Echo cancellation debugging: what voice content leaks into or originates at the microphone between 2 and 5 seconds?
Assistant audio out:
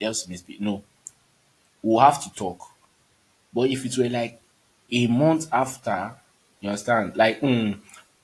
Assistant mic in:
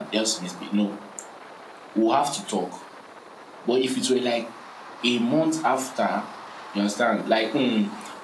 echo only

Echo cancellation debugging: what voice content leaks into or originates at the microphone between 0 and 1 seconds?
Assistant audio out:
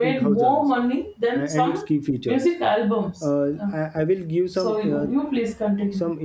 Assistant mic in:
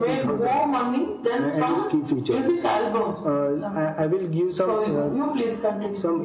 echo only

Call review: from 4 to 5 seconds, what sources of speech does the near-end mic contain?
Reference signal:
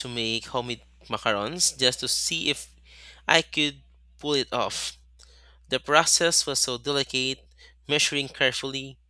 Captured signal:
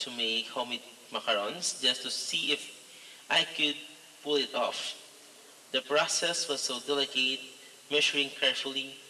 echo only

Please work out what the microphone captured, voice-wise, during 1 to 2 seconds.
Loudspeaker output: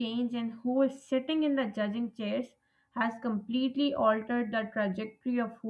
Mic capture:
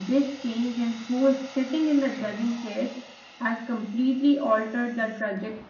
echo only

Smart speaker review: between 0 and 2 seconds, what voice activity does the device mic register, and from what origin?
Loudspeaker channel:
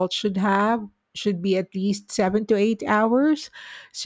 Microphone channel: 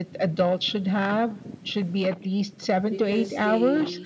echo only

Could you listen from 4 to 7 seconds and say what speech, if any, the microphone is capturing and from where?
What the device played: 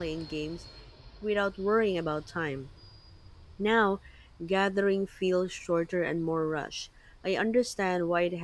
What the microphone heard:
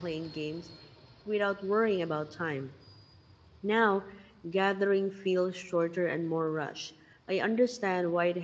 echo only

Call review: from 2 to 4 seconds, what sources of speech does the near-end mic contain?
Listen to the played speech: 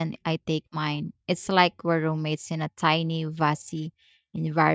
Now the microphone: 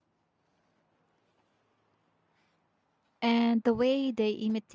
user only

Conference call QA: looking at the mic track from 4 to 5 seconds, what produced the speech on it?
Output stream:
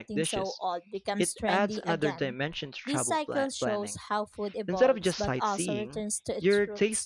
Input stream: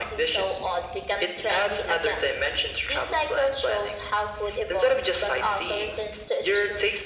echo only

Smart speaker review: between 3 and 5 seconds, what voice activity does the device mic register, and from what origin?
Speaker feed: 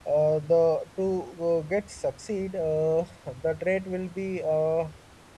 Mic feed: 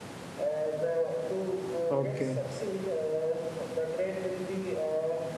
echo only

